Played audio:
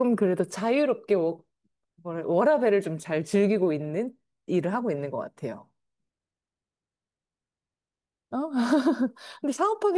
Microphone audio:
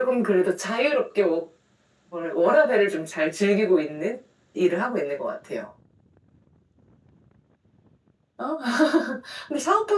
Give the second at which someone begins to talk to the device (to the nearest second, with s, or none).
none